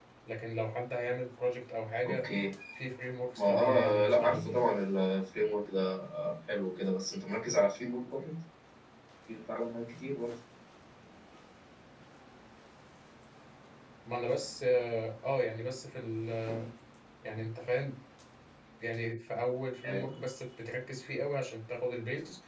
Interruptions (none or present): present